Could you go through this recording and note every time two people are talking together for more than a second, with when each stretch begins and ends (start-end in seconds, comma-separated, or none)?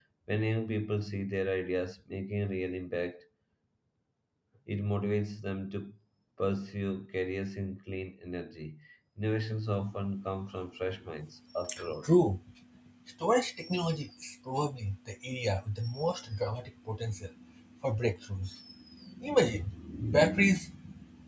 none